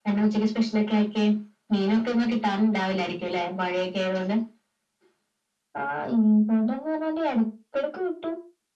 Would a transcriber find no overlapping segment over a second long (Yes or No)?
Yes